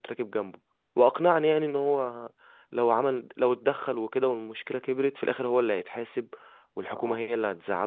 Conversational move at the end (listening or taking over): listening